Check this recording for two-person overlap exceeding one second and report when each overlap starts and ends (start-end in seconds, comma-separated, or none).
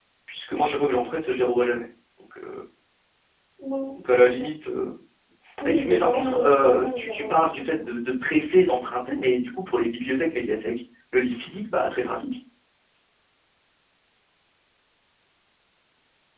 5.7-8.0